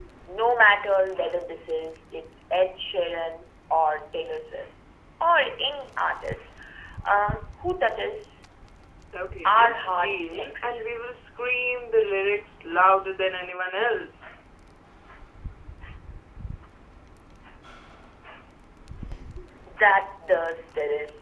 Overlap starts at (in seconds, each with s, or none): 9.4 s